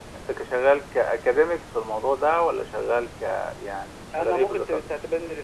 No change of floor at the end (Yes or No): No